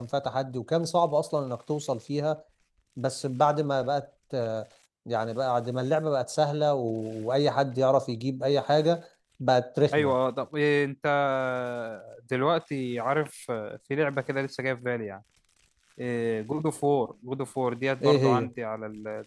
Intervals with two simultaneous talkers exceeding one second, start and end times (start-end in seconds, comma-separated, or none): none